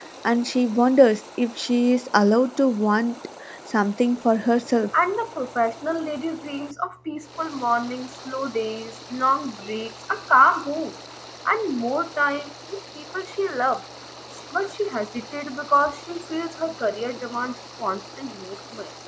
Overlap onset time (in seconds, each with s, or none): none